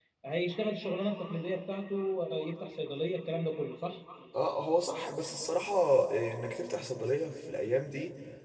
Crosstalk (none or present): none